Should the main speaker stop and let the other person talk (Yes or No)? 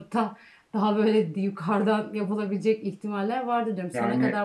No